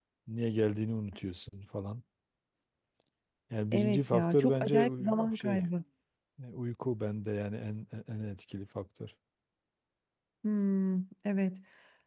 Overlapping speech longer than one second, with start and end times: 3.7-5.6

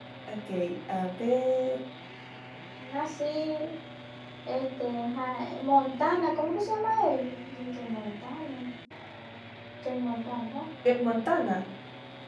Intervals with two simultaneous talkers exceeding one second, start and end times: none

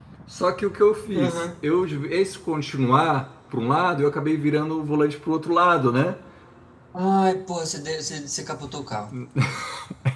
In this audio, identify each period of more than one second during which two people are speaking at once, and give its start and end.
none

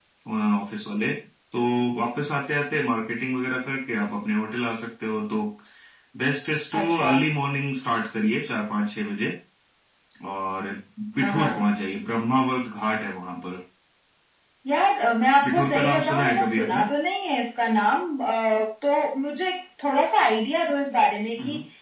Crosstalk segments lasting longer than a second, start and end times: 15.4-16.9

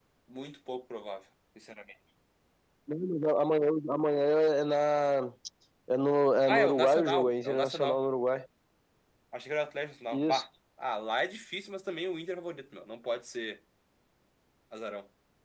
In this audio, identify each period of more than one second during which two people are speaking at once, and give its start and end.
6.5-8.0

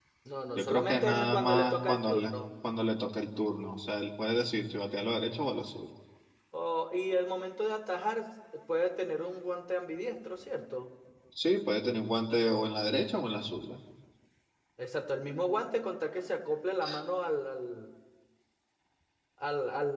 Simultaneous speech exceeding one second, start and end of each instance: 0.6-2.3

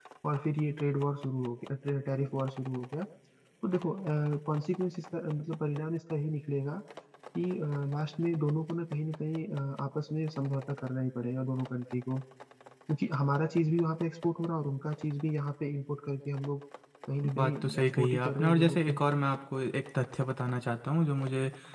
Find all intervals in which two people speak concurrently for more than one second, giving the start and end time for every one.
17.4-19.0

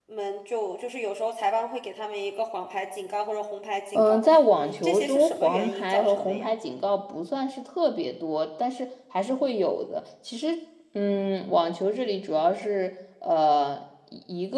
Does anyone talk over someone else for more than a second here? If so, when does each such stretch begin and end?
4.0-6.5

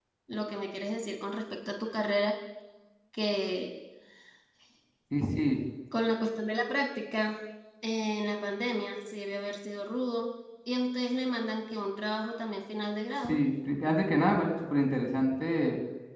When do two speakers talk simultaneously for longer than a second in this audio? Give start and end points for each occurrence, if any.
none

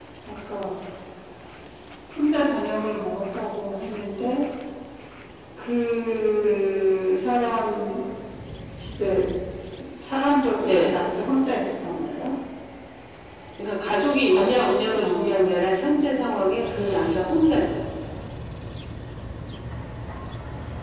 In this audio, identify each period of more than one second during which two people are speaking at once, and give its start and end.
14.3-15.8

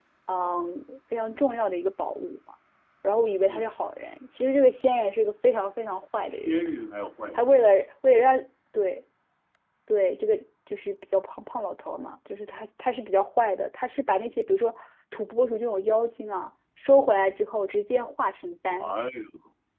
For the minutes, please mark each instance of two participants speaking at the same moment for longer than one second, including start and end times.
none

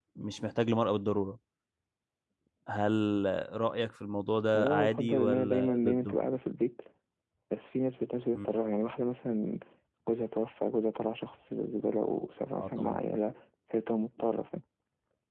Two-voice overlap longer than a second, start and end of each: 4.5-6.2

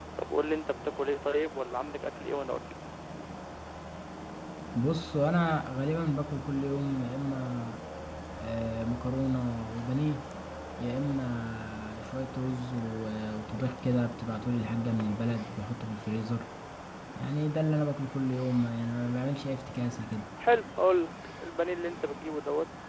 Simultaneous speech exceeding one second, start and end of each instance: none

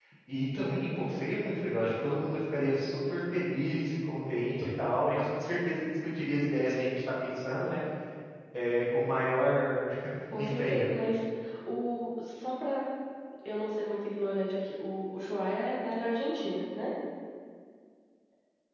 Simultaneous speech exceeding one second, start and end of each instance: none

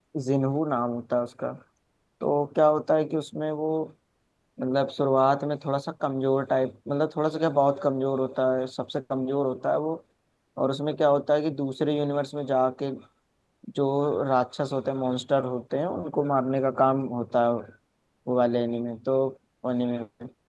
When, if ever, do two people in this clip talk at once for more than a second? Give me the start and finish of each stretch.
none

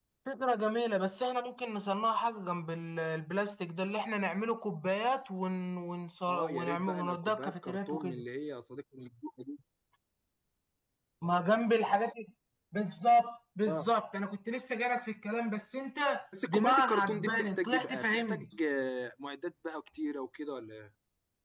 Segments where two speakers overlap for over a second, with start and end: 6.3-8.2, 16.5-18.4

